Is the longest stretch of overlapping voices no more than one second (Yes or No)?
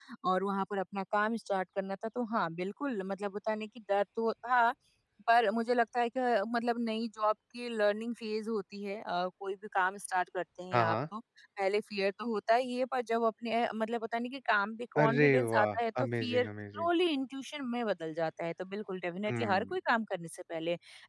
No